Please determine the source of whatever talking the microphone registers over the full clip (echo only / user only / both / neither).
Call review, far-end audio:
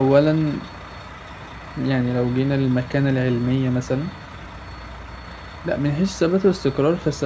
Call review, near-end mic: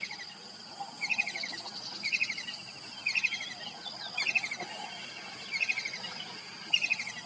neither